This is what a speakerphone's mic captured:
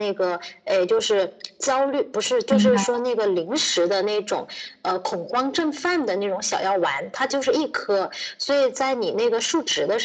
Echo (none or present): present